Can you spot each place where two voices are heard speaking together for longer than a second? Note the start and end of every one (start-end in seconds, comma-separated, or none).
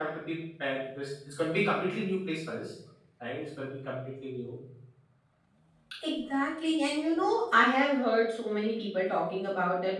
none